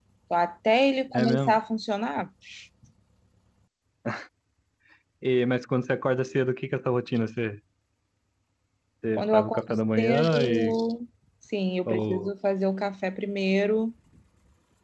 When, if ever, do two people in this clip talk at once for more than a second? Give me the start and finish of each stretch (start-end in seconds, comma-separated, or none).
9.2-10.8